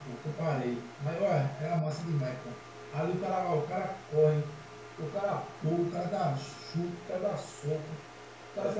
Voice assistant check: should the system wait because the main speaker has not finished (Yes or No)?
Yes